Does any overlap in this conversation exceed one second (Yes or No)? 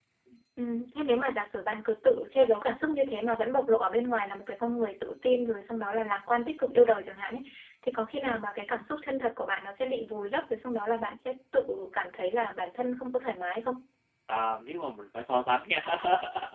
No